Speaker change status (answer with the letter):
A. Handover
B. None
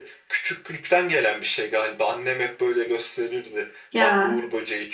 B